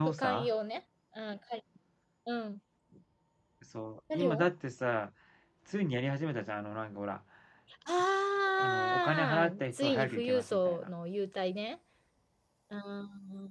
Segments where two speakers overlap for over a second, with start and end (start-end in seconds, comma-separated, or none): 8.6-10.9